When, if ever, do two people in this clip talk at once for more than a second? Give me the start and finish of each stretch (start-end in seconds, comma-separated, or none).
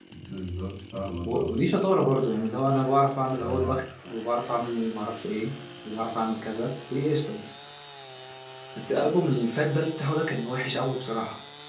none